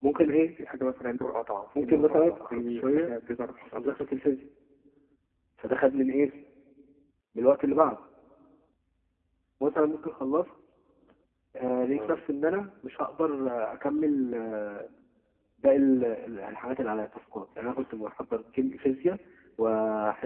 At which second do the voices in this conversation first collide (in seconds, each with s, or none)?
1.8 s